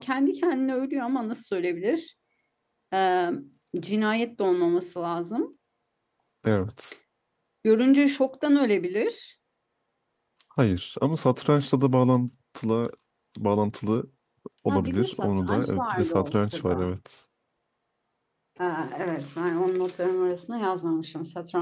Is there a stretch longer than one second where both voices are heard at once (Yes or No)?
Yes